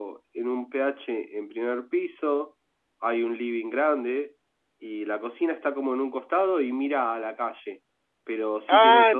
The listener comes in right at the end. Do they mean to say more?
Yes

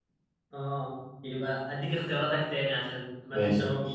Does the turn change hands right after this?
No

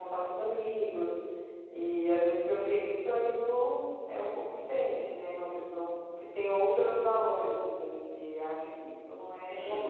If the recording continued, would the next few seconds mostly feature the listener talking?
Yes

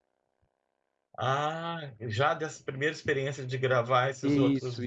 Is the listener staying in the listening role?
No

